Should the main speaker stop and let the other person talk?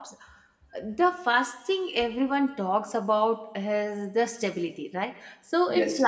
No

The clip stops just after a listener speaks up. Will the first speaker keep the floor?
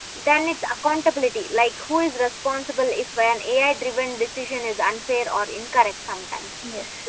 Yes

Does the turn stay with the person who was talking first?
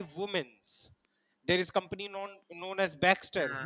Yes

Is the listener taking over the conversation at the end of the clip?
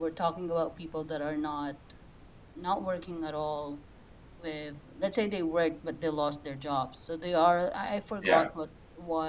No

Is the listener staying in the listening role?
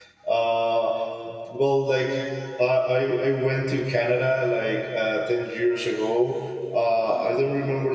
Yes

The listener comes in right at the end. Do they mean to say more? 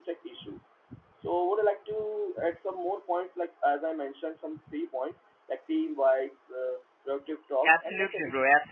Yes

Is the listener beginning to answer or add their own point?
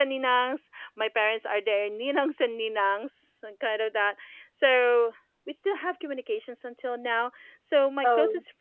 No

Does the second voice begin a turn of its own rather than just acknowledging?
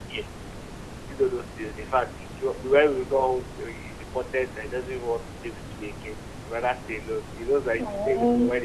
No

